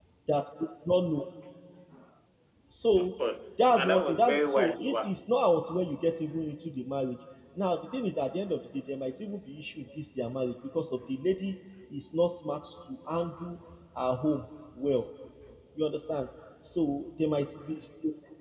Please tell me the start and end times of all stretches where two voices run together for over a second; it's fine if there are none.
3.7-5.2

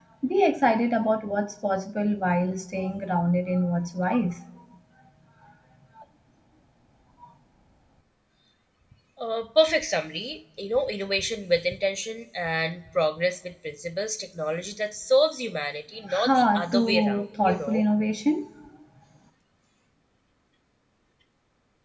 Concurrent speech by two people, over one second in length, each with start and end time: 16.1-17.9

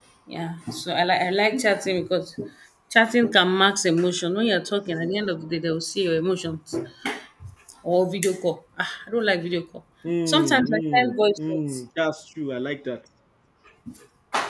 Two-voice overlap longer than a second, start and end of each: 10.3-11.8

